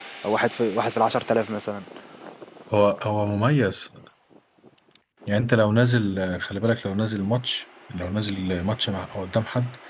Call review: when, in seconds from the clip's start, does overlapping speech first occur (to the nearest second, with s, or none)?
none